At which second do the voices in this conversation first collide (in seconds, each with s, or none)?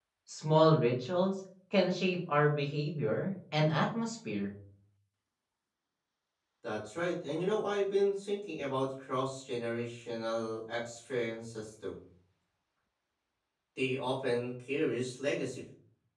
none